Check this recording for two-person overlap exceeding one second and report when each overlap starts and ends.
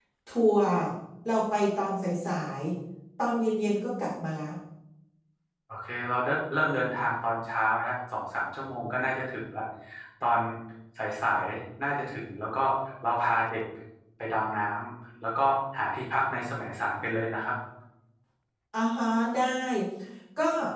none

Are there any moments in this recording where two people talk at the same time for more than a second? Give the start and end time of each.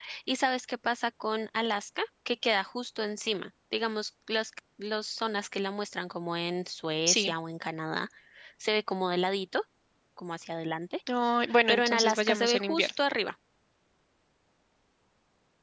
11.7-12.9

